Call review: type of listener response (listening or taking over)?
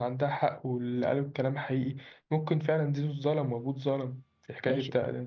taking over